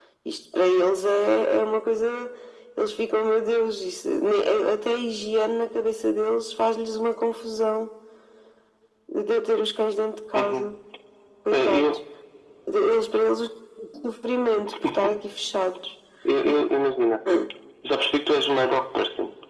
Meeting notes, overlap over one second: none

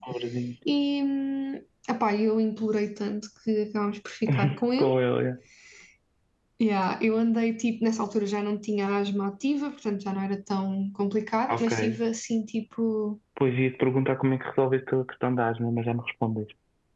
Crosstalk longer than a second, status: none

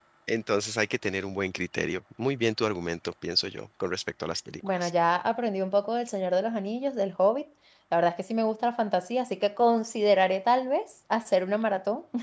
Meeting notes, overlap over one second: none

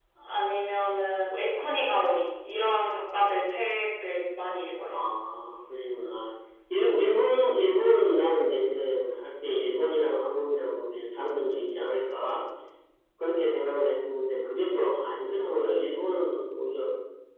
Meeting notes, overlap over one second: none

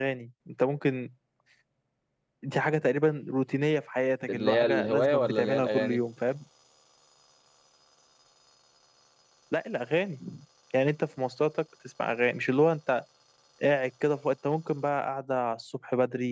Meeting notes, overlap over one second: present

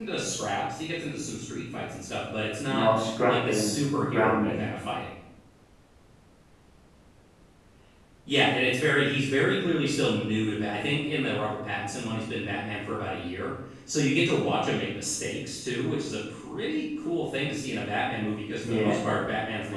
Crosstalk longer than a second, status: present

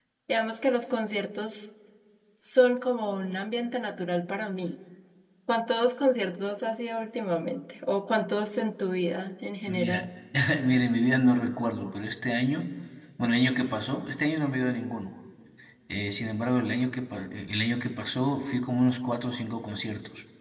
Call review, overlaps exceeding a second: none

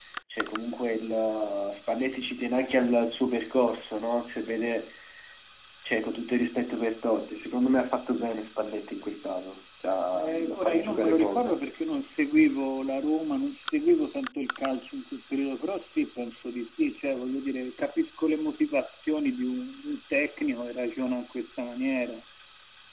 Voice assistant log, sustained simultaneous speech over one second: present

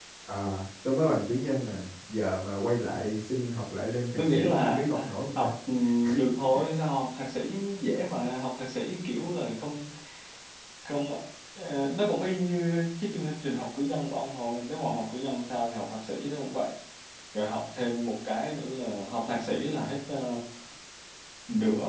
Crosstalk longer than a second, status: present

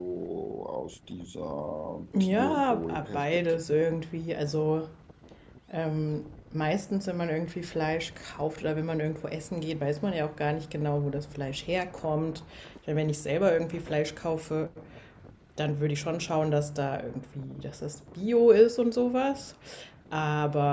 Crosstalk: present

